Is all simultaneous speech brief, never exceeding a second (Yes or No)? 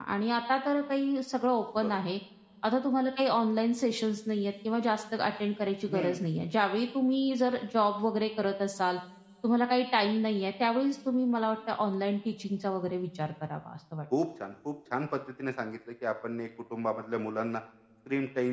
Yes